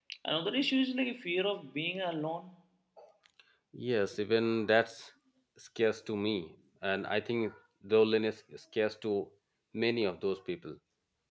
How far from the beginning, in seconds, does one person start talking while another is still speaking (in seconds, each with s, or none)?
none